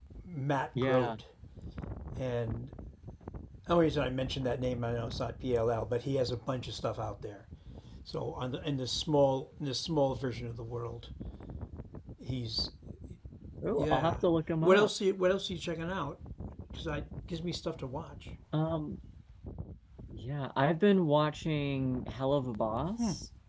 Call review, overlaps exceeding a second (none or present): none